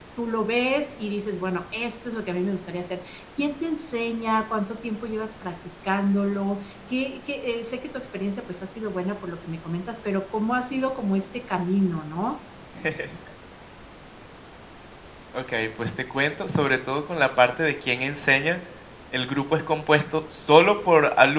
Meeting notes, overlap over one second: none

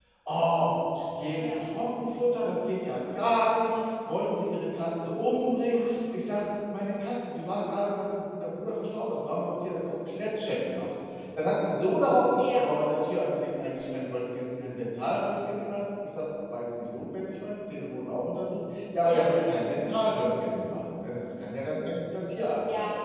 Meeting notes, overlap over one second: none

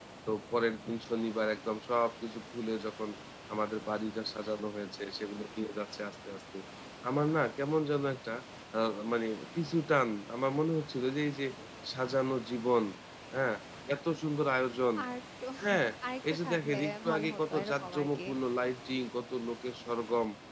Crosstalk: present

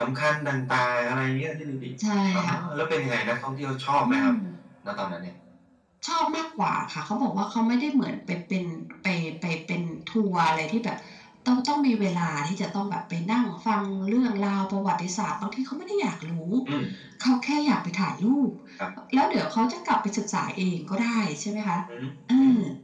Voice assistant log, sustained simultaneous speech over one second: none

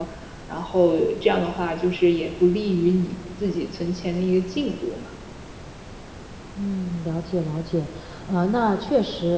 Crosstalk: none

